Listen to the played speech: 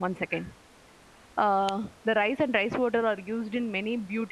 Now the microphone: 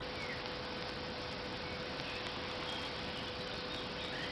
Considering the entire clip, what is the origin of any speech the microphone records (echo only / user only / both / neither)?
neither